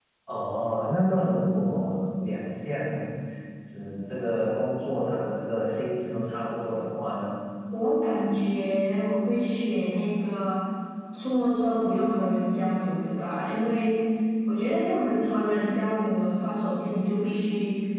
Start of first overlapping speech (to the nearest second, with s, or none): none